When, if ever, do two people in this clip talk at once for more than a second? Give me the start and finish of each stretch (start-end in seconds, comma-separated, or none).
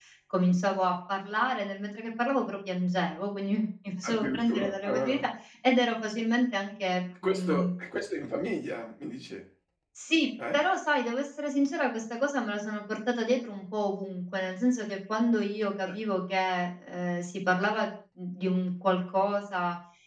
4.0-5.2